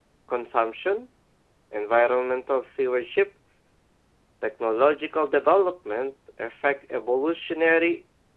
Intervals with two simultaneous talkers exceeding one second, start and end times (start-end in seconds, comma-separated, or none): none